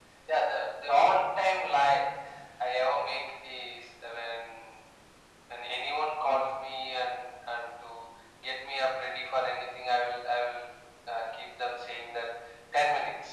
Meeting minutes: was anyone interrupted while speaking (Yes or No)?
No